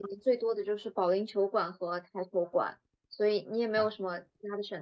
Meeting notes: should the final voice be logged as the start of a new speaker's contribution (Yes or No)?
No